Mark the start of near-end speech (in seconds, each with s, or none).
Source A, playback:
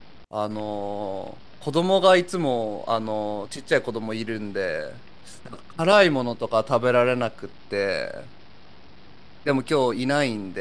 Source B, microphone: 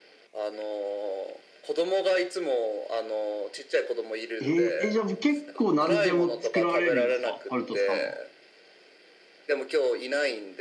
4.4 s